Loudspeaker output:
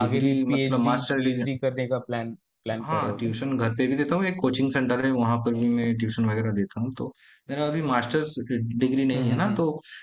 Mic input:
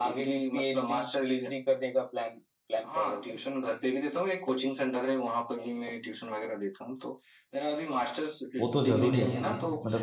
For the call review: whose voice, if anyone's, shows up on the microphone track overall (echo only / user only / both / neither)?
both